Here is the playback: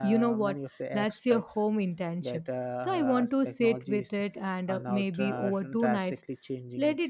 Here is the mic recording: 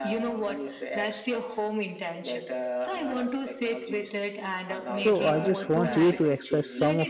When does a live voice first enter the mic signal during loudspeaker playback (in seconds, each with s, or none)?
4.9 s